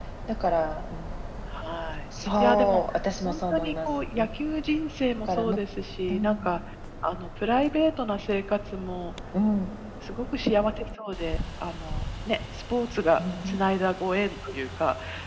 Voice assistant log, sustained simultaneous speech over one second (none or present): present